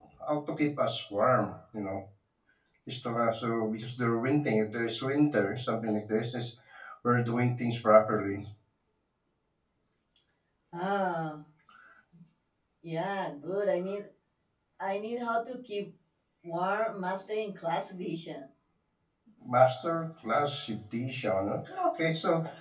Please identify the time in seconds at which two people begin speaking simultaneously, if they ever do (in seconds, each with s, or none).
none